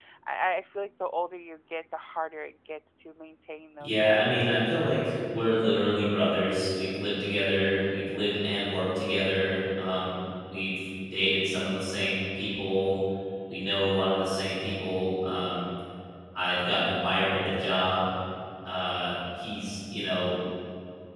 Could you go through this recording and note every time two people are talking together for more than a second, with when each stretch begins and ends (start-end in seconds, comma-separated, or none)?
3.8-5.0